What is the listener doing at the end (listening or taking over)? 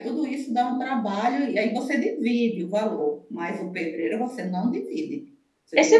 taking over